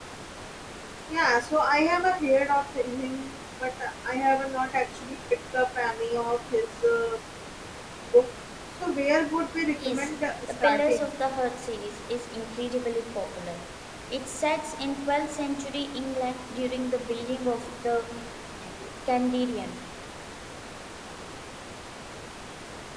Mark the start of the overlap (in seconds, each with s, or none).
9.8 s